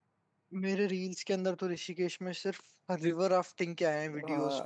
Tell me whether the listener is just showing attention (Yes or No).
No